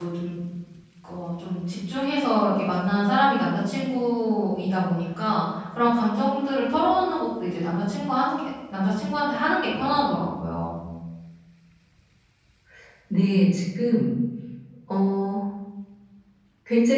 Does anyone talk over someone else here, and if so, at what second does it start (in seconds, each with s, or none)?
none